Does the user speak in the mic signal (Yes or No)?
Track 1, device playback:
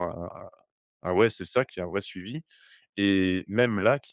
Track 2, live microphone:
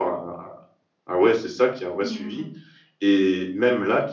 Yes